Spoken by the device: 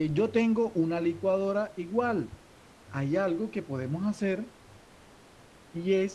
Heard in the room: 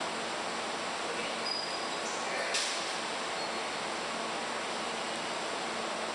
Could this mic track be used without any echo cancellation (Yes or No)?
Yes